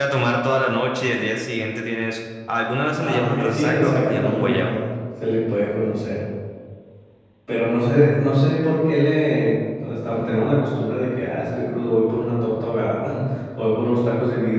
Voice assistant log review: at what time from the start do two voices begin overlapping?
3.0 s

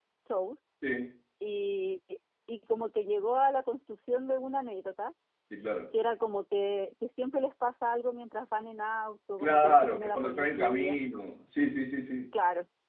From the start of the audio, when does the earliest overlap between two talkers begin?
9.4 s

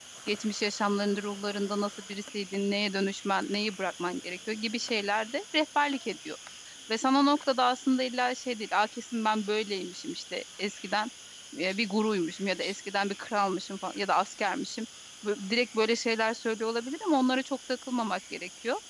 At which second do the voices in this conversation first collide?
none

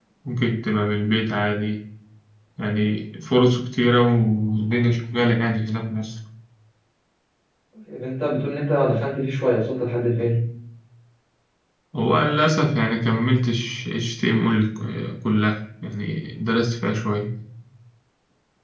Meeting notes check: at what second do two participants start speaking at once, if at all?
none

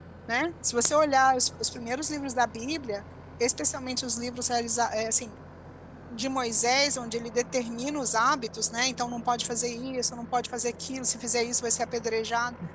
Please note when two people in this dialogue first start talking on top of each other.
none

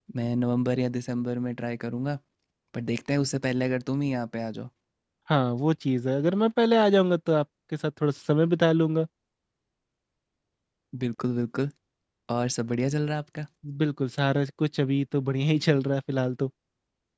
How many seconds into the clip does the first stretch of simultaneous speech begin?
none

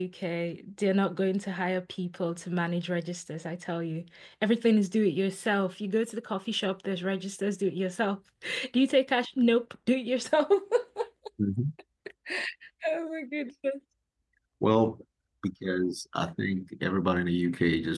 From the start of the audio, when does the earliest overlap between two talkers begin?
none

